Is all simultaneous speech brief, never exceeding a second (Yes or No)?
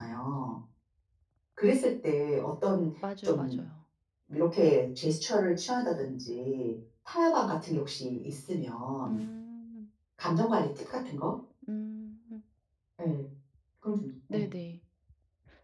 Yes